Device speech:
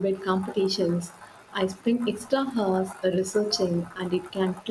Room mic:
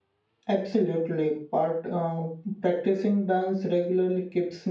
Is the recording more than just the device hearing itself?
Yes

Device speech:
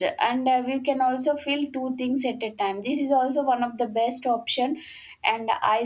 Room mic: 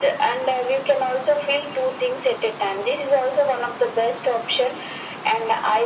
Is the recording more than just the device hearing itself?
No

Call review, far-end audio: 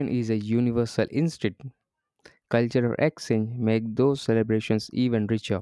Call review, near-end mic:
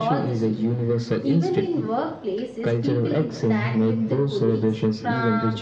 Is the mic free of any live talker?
No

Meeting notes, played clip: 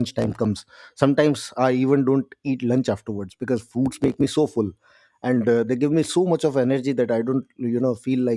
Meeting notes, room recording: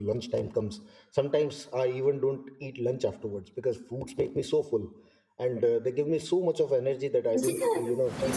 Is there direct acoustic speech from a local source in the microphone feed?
Yes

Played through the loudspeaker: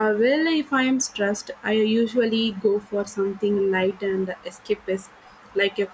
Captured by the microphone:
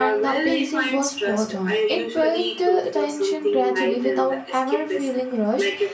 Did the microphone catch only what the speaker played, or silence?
No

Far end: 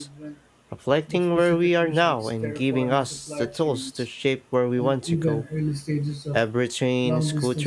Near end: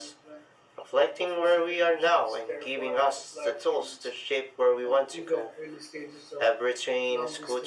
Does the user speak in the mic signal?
No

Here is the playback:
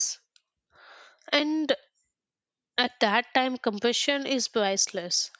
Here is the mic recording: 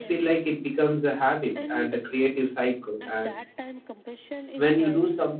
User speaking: Yes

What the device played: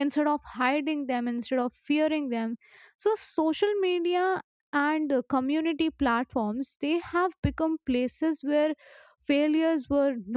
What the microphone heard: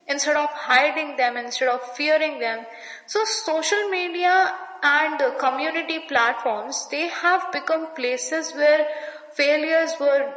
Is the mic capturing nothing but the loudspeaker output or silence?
Yes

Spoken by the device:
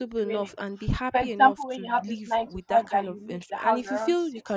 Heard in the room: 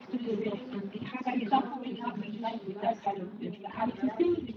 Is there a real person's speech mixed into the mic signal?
Yes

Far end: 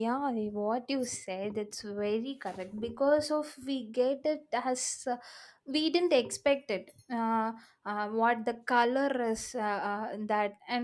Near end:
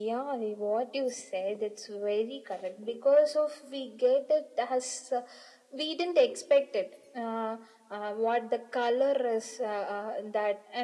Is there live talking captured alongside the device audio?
No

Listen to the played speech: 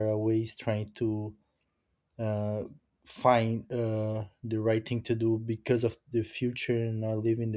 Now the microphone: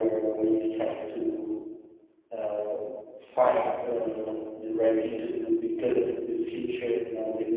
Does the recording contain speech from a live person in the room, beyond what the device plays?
No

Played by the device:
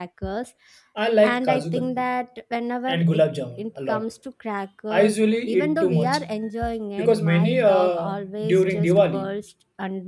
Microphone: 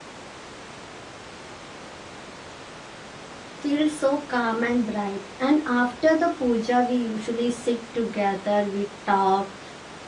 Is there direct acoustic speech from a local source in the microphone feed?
Yes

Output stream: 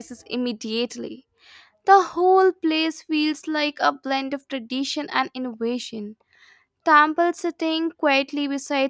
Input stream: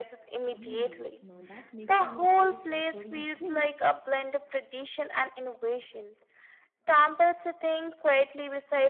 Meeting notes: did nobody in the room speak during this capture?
No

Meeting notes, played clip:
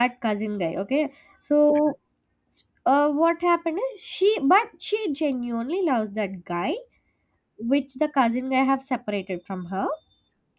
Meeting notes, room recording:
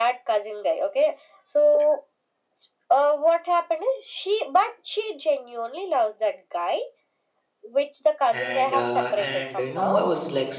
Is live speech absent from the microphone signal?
No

